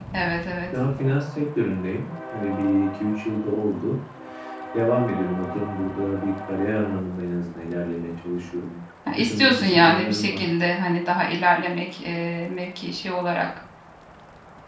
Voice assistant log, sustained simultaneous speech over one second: present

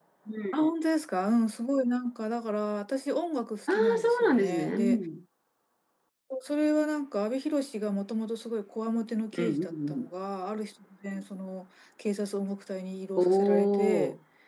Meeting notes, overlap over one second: present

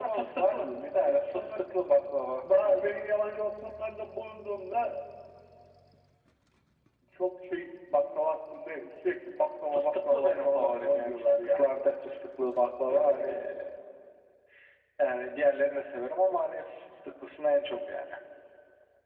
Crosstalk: present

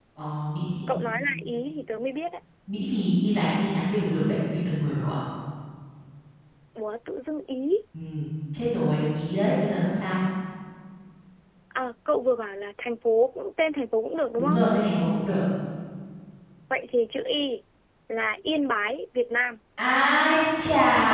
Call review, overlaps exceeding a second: none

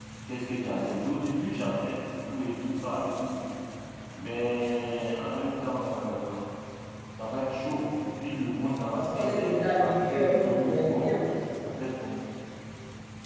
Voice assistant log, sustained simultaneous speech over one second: present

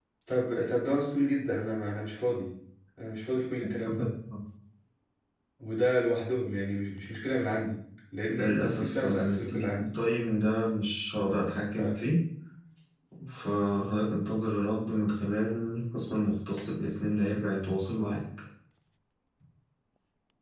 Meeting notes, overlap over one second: present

